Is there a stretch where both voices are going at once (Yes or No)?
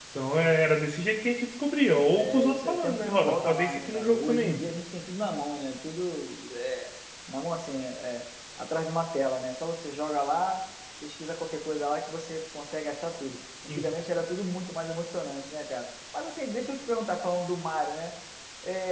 Yes